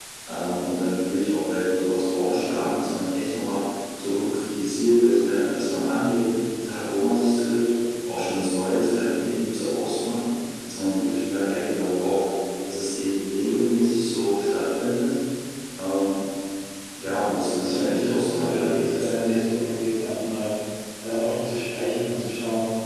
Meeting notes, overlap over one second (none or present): present